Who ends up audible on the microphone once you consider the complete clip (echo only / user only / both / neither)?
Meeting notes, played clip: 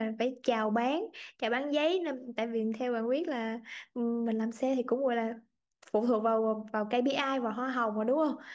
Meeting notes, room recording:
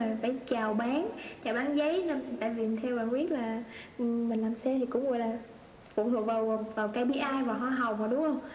echo only